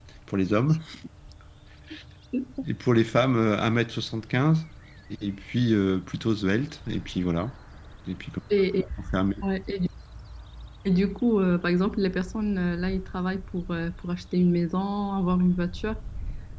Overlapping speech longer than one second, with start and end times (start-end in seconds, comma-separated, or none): none